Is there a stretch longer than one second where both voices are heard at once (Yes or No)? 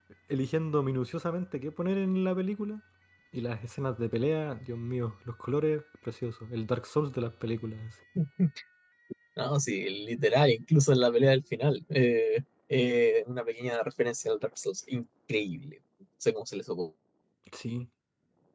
No